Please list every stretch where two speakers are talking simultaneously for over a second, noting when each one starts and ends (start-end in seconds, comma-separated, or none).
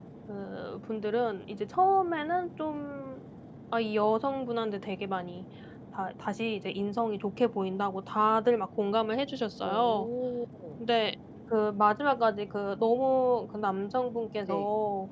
none